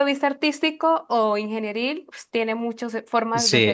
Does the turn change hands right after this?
Yes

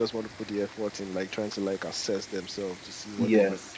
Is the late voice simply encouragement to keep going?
No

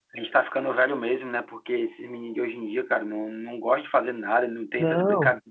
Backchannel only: Yes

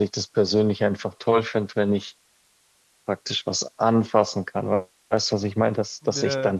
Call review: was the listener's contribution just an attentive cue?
Yes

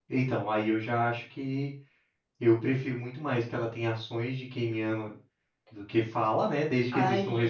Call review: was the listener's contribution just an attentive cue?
No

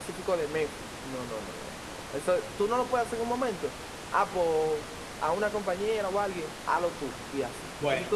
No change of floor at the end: No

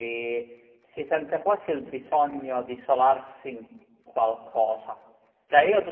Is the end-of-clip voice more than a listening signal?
No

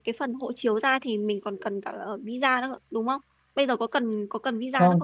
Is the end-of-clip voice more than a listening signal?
Yes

